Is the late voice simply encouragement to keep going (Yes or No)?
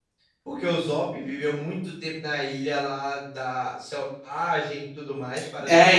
No